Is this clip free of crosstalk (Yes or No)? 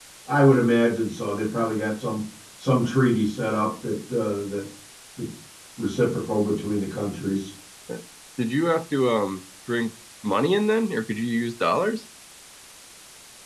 Yes